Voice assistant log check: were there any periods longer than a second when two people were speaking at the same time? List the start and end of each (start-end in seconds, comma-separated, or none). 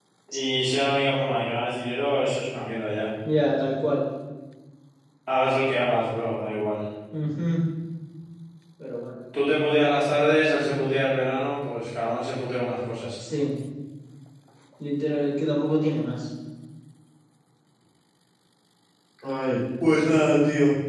none